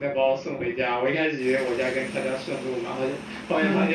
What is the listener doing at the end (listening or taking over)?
listening